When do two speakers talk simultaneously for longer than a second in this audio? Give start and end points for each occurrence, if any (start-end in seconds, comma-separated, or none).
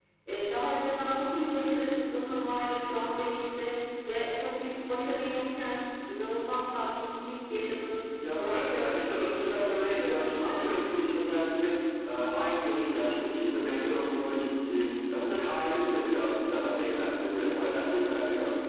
8.4-10.8